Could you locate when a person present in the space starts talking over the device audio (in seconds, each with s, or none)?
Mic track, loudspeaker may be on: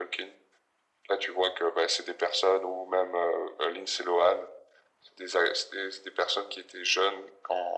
none